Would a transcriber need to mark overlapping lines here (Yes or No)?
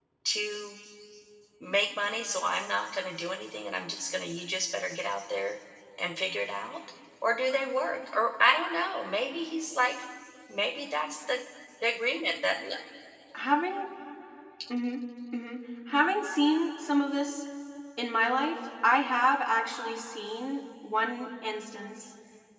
No